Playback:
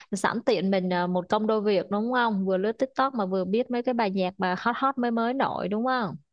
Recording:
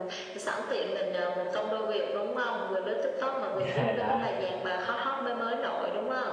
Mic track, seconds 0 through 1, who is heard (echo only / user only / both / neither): echo only